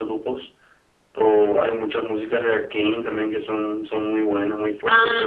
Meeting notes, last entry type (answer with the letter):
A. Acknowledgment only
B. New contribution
B